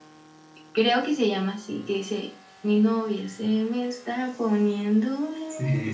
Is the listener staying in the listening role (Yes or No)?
No